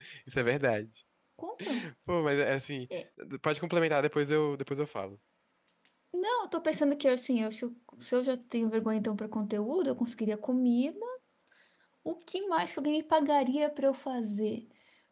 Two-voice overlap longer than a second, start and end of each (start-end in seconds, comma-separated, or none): none